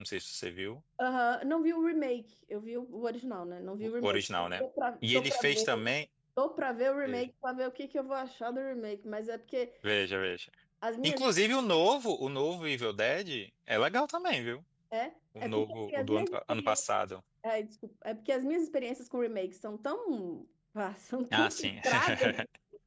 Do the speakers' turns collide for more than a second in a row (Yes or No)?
Yes